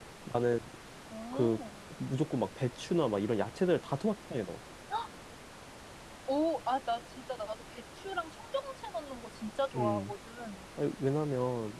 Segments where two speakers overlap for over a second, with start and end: none

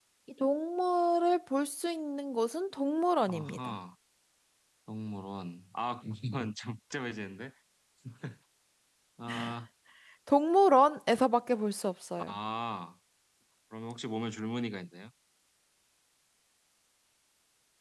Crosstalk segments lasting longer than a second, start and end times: none

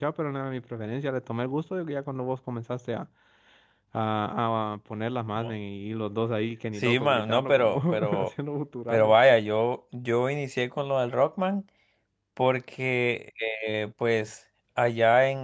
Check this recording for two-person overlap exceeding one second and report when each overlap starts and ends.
6.8-8.3

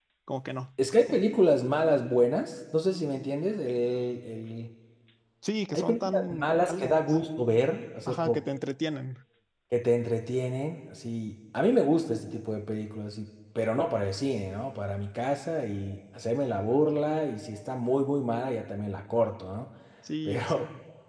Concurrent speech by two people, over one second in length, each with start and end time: 5.7-7.2

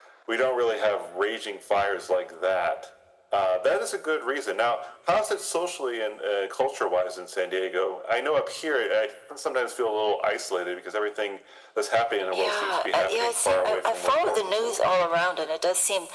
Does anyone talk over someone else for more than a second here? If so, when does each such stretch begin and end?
12.3-15.1

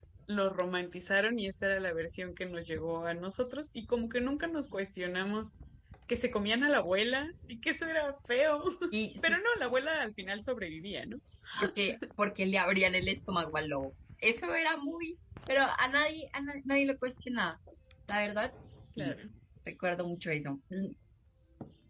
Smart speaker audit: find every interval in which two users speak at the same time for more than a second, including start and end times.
none

